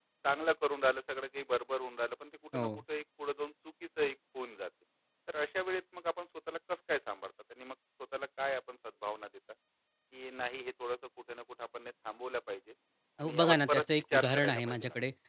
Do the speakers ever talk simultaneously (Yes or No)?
Yes